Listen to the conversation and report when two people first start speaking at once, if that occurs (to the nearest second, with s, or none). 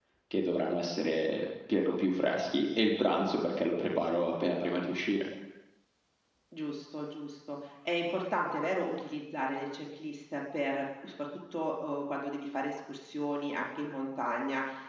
none